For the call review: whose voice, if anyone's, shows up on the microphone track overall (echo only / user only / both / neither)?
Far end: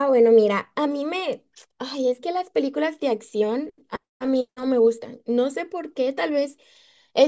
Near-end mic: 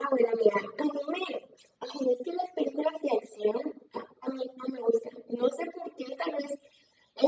echo only